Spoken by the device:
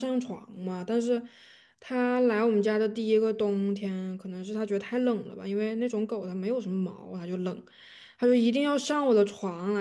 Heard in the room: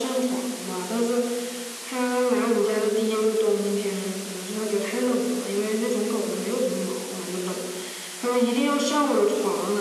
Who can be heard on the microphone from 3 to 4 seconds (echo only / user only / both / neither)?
echo only